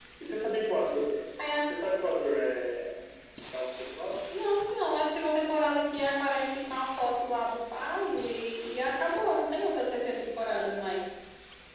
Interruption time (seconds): none

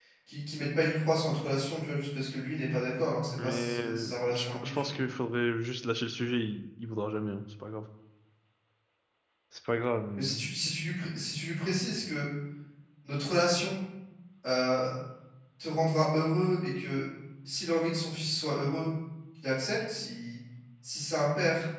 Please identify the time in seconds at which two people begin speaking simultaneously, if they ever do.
3.4 s

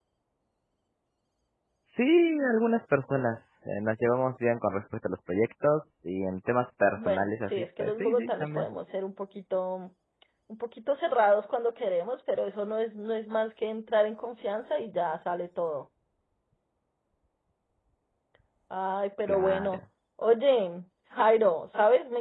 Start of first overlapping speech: 7.0 s

